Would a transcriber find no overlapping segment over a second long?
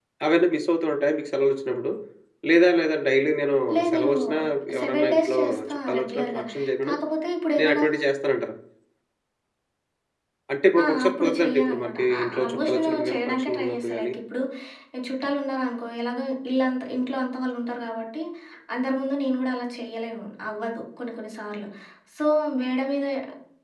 No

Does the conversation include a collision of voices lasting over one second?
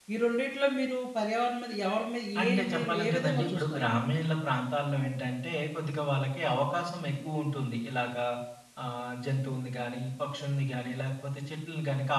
Yes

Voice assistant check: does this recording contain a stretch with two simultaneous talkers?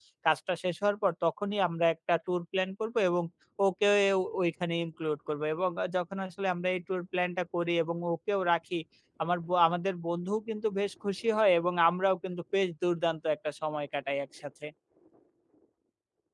No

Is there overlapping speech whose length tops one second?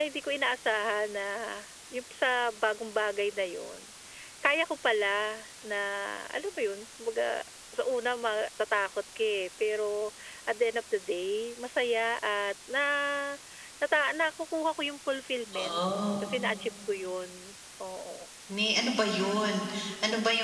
No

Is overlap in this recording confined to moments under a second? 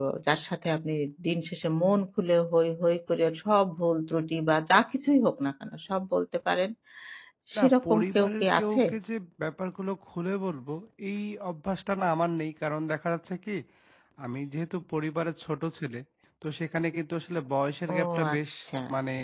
No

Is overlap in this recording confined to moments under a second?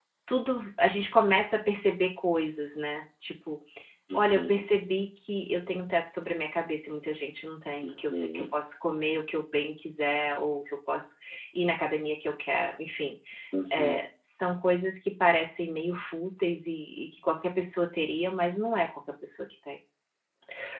Yes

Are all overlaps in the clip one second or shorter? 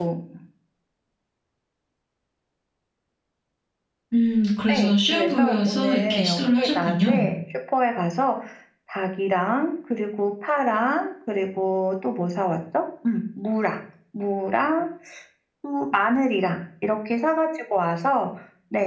No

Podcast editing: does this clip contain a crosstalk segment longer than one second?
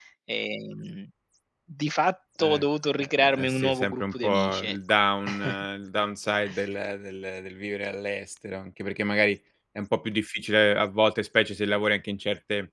Yes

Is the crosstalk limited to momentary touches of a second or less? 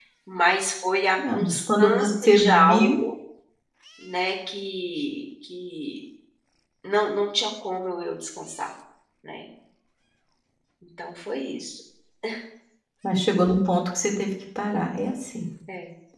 No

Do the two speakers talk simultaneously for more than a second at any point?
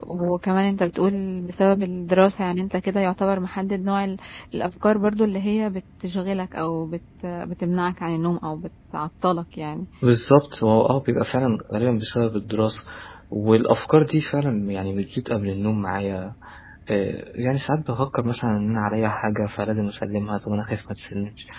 No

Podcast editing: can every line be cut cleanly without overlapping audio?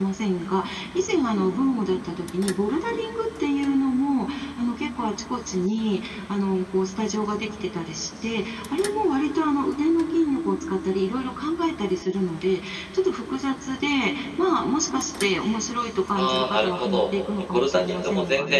No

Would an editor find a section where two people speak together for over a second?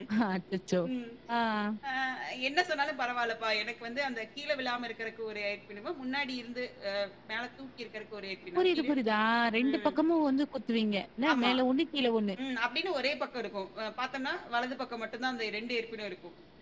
No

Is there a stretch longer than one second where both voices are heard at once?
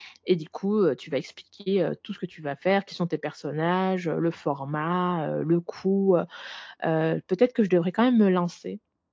No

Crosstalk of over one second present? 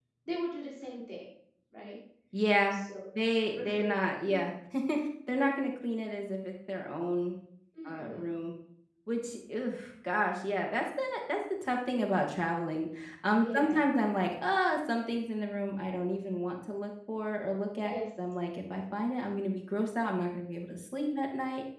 No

